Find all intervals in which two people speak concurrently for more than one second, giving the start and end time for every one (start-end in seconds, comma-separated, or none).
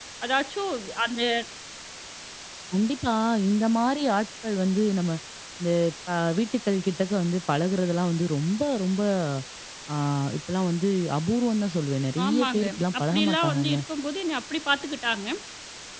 12.2-13.8